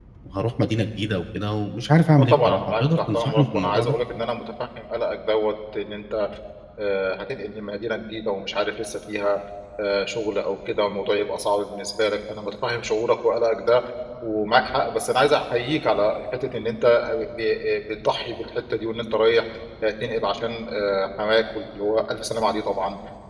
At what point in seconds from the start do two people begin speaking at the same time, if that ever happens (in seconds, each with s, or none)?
2.2 s